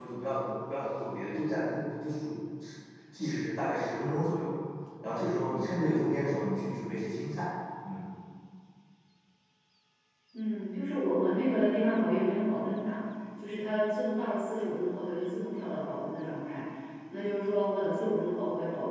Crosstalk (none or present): none